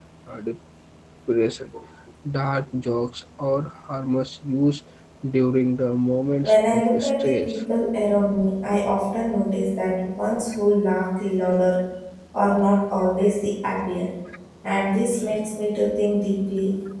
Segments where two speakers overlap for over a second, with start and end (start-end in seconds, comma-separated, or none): 6.4-7.6